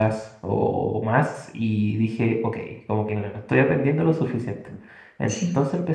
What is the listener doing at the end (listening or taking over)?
listening